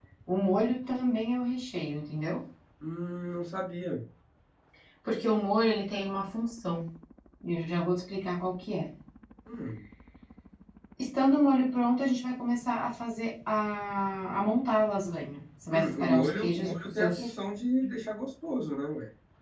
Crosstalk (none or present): present